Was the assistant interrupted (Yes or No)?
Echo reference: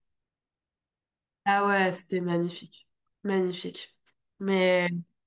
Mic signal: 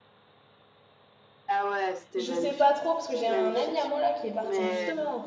Yes